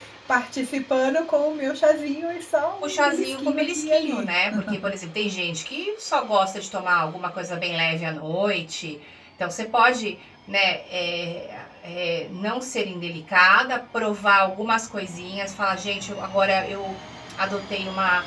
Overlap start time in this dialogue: 2.8 s

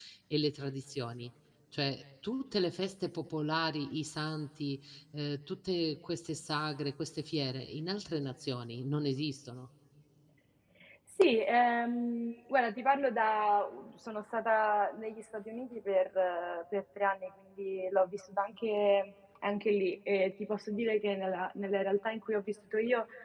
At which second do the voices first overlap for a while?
none

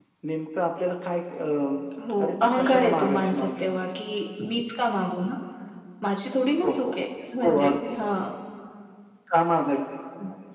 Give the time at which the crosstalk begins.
2.2 s

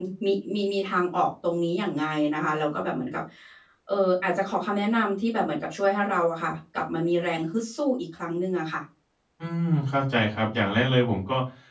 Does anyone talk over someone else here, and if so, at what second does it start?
none

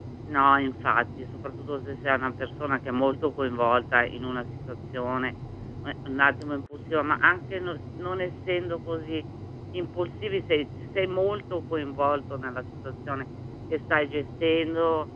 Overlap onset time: none

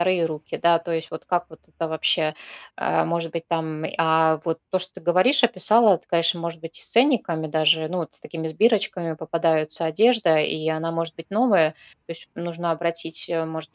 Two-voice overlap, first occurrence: none

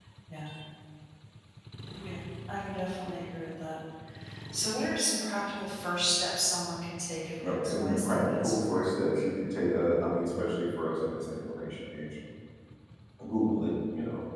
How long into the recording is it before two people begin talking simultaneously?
7.4 s

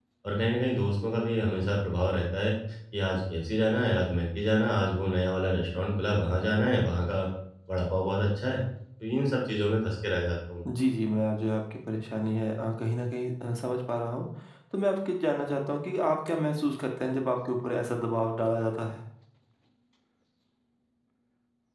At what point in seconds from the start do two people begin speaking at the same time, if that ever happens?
none

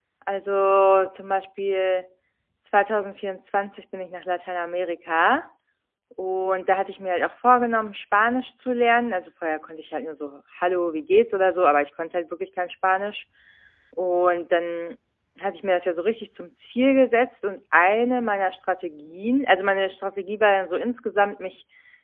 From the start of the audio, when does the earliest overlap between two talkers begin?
none

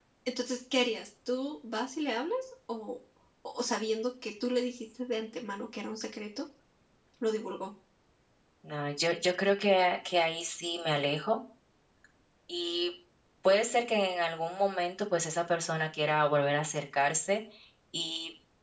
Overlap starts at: none

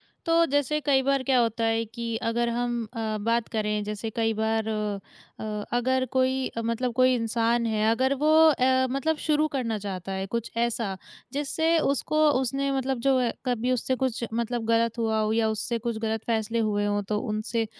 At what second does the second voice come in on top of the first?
none

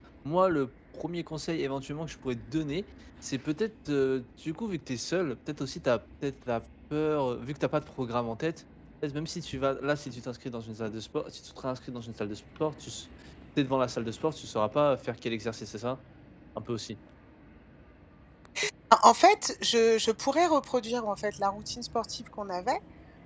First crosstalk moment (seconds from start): none

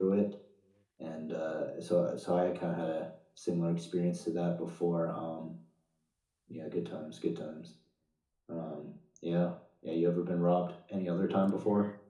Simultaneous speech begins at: none

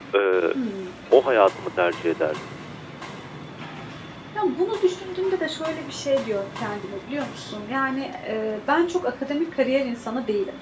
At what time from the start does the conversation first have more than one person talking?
none

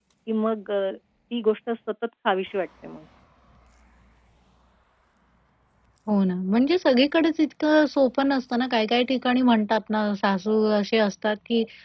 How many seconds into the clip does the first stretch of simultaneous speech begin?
none

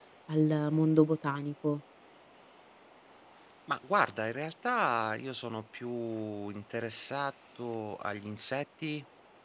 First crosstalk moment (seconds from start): none

